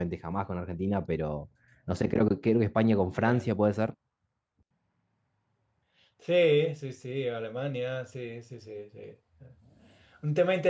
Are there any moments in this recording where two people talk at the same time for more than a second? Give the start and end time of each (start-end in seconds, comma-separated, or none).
none